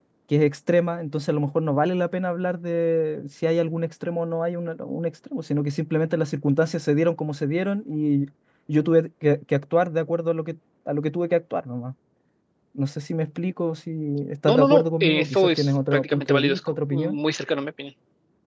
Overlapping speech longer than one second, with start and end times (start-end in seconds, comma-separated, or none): 14.4-17.2